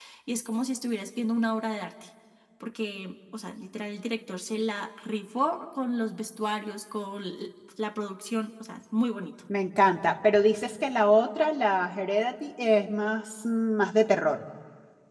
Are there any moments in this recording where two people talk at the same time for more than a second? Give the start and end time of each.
none

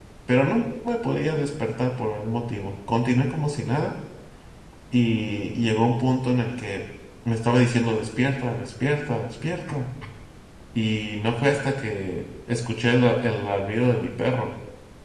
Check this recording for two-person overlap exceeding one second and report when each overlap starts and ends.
none

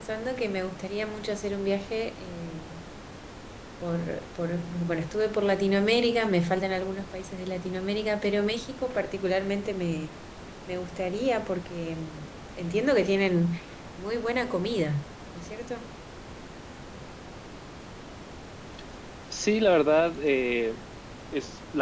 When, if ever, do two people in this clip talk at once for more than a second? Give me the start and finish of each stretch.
none

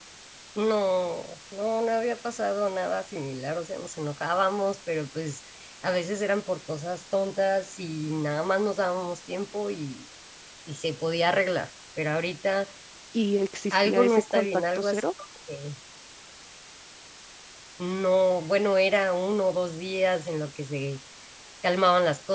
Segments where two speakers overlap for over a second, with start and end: 13.7-15.0

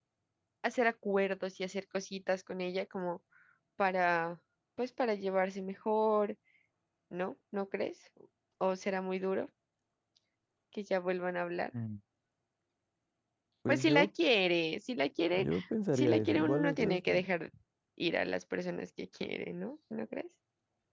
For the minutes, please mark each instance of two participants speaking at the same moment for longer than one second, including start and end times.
16.0-17.2

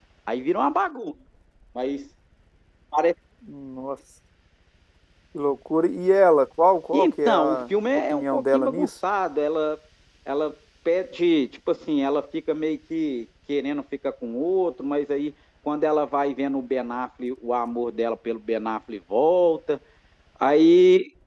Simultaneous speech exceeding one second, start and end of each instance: 6.9-8.9

